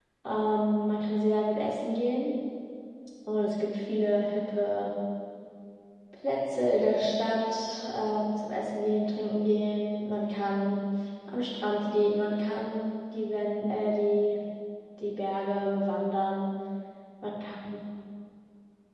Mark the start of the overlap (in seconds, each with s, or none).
none